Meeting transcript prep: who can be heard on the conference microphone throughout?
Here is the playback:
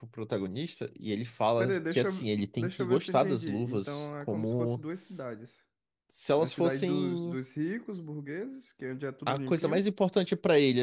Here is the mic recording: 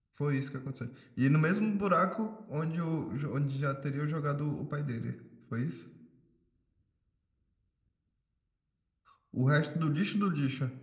user only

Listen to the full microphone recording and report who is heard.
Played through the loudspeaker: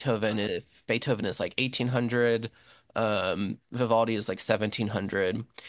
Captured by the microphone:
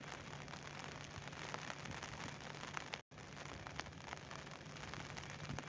neither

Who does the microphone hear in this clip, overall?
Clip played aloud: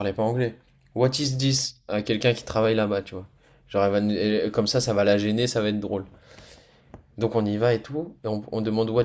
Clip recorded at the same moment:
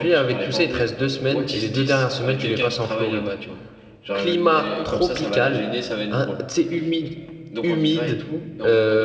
both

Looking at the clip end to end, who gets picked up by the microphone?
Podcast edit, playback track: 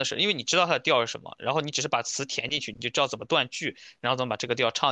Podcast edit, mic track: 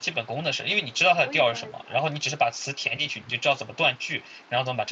both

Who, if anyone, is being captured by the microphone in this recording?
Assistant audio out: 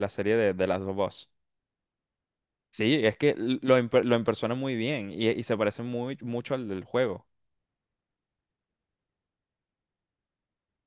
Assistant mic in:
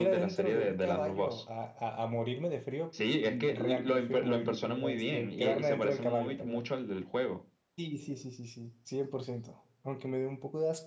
both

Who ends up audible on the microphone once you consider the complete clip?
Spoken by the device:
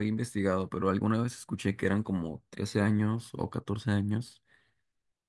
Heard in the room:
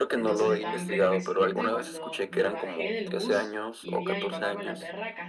both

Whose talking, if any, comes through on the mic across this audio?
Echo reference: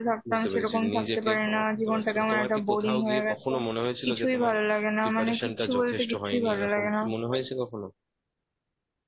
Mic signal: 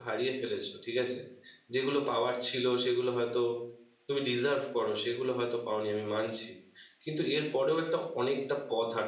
user only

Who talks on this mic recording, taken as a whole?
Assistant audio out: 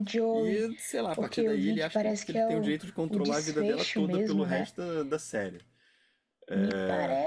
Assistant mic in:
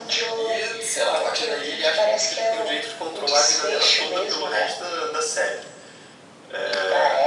echo only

